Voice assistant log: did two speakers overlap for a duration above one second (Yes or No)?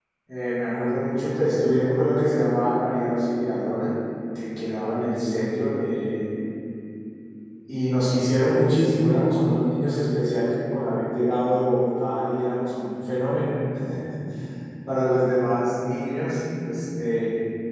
No